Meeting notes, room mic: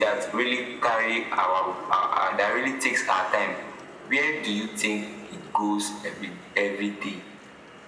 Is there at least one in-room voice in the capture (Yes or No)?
No